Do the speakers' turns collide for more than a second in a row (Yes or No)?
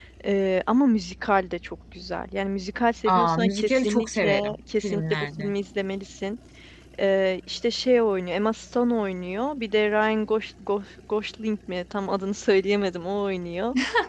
Yes